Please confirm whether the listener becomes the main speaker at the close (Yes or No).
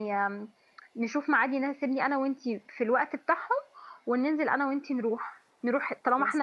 No